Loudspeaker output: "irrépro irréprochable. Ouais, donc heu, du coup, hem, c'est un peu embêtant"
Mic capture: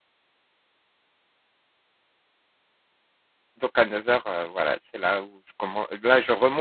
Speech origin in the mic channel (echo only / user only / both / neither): user only